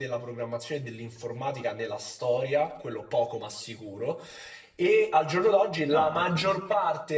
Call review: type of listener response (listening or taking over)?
listening